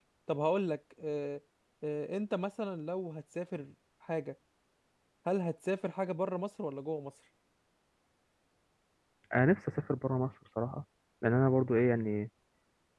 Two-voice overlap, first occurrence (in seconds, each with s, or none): none